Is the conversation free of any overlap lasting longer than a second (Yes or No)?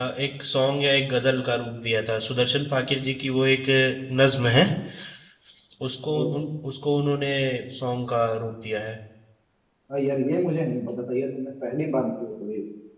Yes